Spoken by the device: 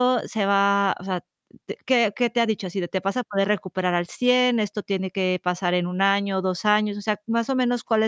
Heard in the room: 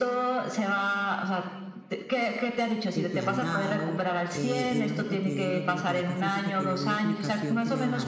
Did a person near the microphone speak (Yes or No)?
Yes